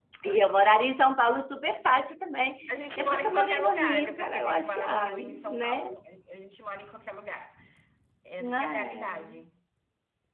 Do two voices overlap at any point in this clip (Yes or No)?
Yes